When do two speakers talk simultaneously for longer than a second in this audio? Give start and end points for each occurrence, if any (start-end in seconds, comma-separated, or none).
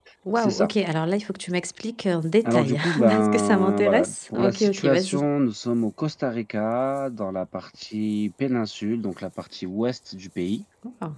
2.4-5.2